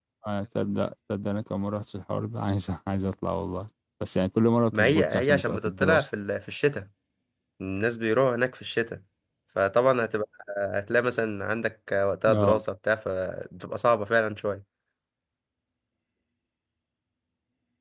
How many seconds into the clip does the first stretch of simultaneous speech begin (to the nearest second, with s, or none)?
5 s